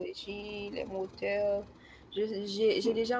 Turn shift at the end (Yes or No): No